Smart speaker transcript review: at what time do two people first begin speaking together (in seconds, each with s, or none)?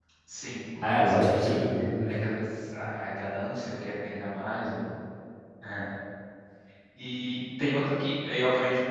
0.8 s